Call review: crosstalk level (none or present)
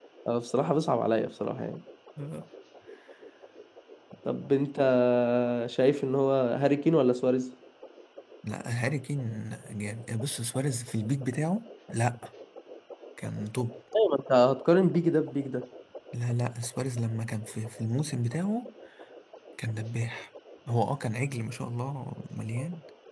none